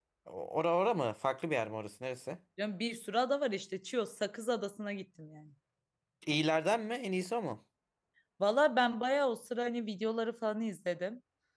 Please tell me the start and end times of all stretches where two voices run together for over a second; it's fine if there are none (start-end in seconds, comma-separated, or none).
none